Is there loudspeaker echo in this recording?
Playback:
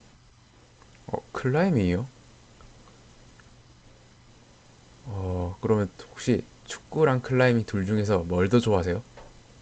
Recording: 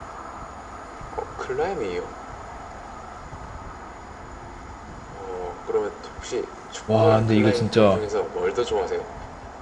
Yes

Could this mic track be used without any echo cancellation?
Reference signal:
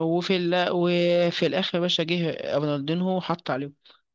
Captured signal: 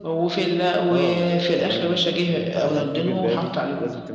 No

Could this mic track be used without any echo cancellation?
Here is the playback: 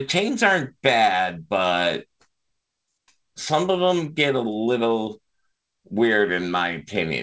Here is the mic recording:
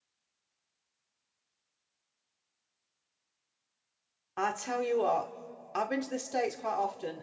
Yes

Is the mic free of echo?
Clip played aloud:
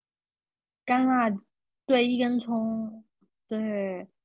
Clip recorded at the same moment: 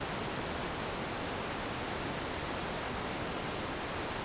Yes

